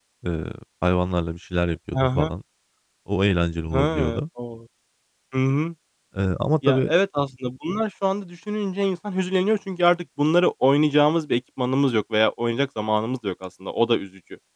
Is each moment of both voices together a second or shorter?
Yes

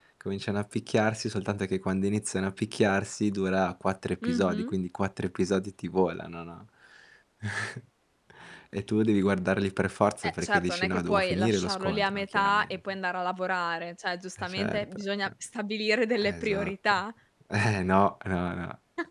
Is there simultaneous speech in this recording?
Yes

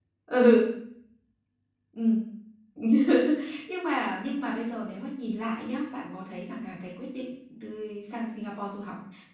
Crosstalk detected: No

